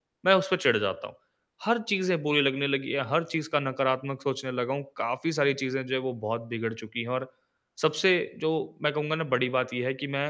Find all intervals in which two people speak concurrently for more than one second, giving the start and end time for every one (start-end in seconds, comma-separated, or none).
none